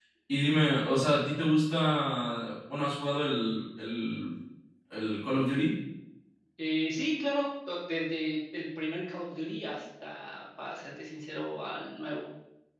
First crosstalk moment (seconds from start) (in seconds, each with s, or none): none